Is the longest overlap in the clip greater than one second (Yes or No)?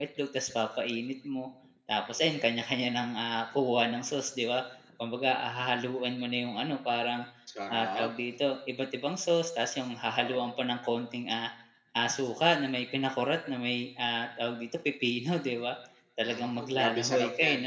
Yes